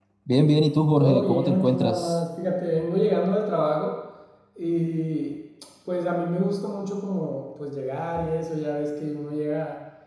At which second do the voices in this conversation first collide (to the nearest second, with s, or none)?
1 s